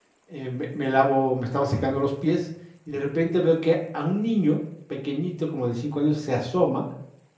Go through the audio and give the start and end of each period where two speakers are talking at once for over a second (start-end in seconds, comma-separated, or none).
none